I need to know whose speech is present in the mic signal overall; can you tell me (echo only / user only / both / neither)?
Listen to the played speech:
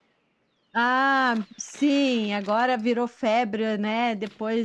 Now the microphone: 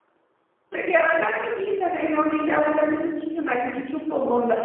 user only